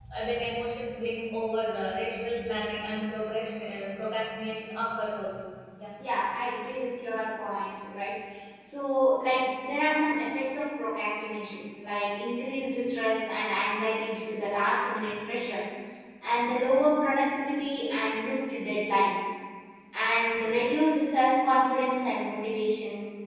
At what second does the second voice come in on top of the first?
none

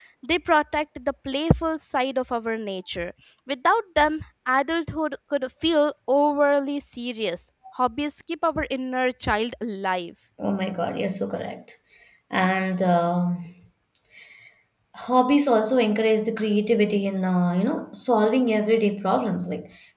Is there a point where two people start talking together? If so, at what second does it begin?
none

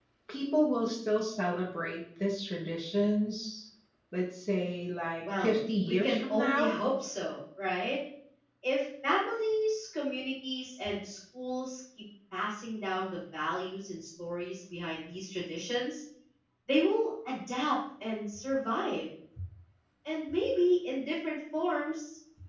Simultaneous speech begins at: 5.2 s

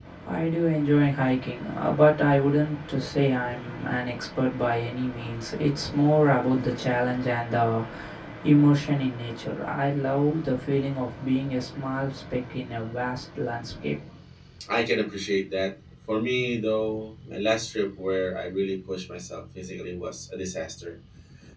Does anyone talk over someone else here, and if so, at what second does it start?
none

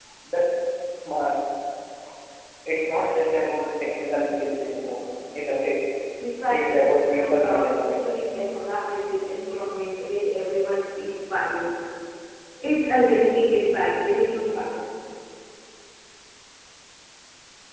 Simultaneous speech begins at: 6.5 s

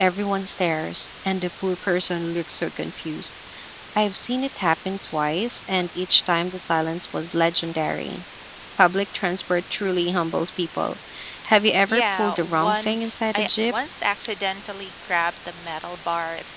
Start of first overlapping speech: 11.9 s

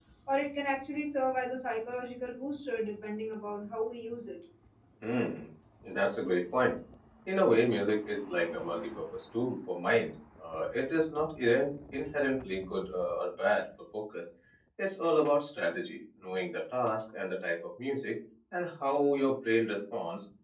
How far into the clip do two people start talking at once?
none

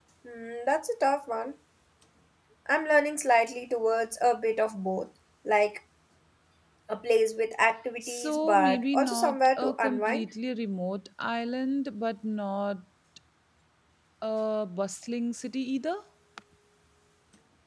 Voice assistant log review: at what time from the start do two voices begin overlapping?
8.0 s

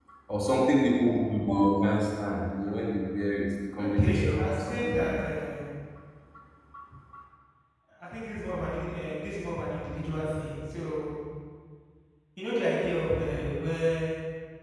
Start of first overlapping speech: 3.8 s

